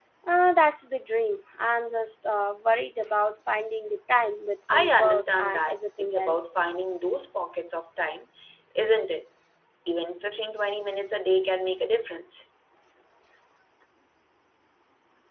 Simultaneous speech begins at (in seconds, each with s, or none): 4.7 s